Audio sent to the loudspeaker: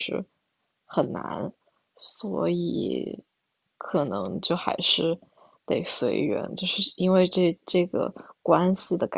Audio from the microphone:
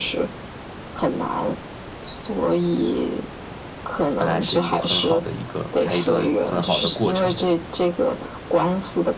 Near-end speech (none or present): present